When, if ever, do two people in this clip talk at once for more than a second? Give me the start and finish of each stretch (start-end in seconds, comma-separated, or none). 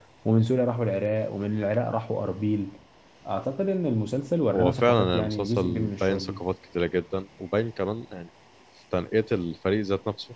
4.5-6.4